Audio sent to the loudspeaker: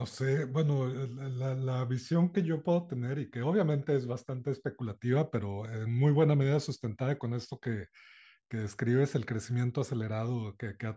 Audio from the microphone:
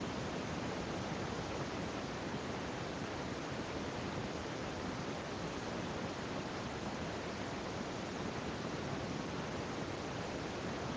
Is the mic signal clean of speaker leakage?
Yes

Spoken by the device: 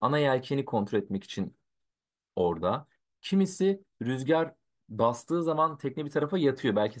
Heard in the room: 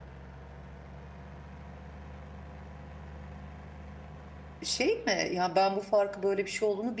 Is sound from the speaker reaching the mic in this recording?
No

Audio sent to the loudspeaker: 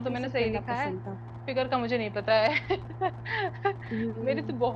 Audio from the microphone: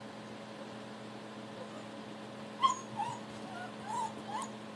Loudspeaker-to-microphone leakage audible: No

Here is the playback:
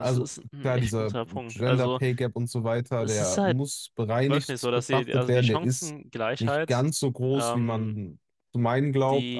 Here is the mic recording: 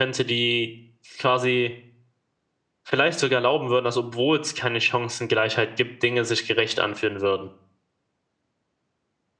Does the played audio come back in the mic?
No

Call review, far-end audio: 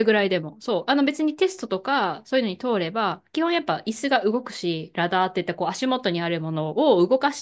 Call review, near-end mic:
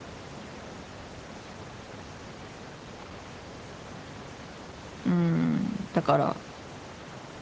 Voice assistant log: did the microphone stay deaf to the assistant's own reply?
Yes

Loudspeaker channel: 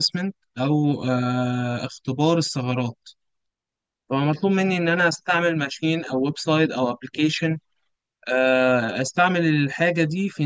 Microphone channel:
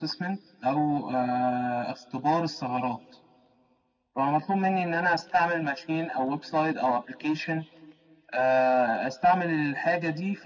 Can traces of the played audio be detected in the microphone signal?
Yes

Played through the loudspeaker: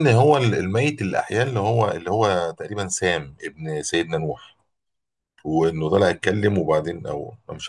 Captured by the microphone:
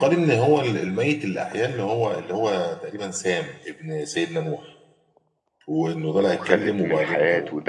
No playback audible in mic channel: No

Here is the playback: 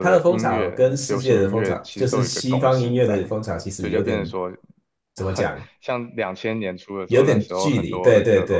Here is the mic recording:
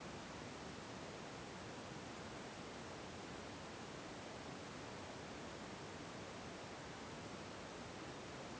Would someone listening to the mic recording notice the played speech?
No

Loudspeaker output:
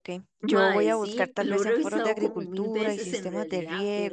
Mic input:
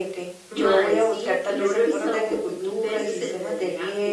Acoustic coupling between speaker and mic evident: Yes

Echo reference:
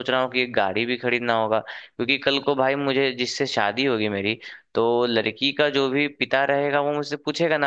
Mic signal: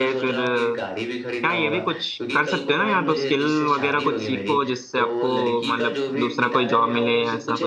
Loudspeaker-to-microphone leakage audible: Yes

